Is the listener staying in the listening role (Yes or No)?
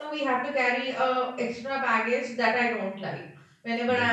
Yes